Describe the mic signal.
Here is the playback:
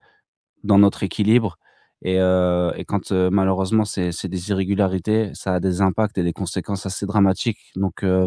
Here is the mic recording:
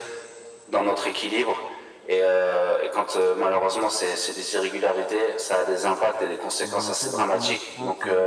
both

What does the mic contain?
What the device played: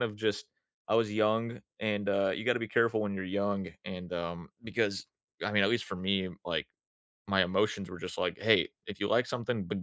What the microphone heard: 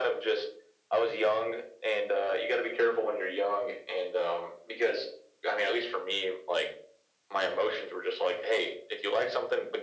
echo only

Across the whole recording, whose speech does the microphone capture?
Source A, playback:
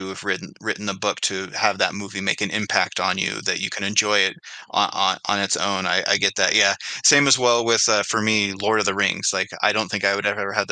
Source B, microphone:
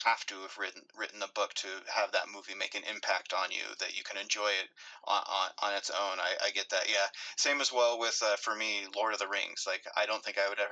echo only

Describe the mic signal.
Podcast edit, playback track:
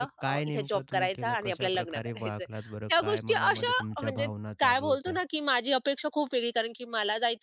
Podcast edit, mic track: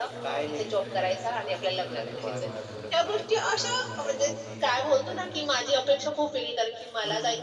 both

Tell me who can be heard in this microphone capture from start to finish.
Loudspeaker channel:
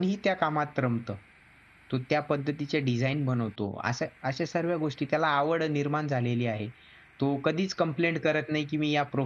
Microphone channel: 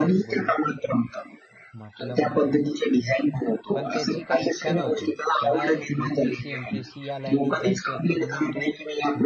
both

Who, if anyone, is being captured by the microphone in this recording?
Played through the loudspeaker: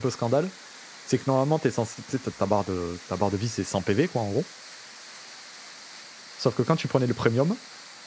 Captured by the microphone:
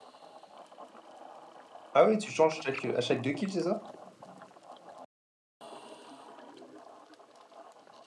user only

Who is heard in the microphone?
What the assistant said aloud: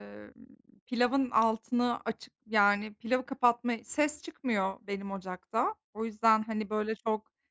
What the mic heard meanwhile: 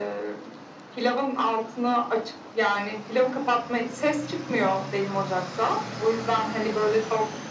echo only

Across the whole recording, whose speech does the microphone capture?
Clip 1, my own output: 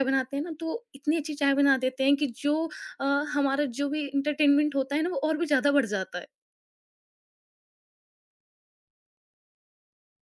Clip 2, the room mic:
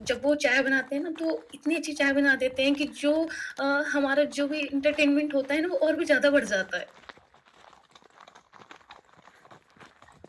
echo only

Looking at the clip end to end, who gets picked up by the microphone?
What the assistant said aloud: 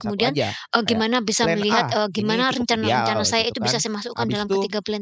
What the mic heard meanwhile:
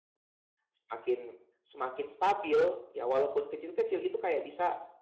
user only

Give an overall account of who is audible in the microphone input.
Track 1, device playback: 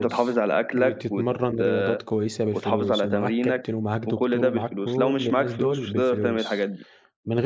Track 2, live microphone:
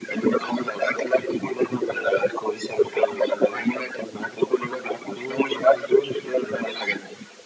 echo only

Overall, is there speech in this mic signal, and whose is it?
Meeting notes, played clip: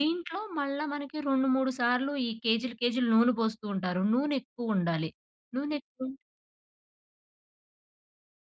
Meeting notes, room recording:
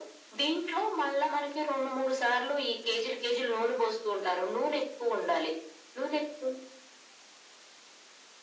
echo only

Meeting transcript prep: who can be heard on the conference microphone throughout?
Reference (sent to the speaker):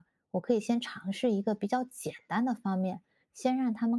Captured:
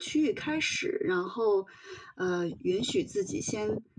user only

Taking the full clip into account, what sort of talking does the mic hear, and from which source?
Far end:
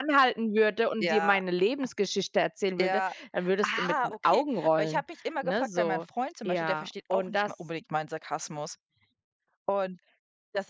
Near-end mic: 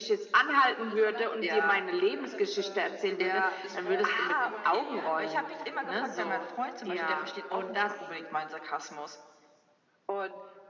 both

